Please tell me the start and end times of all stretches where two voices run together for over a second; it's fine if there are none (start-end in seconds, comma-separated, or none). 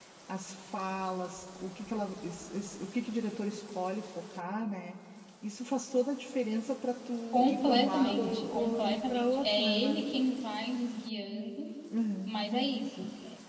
7.3-10.1